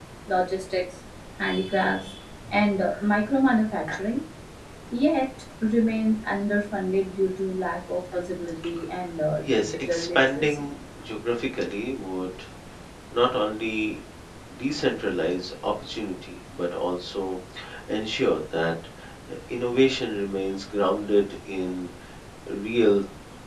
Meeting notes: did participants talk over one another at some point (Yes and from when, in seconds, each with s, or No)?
Yes, from 9.4 s